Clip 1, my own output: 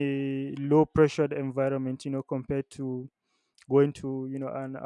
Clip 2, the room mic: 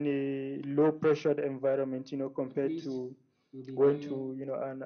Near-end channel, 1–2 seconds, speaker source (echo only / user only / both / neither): echo only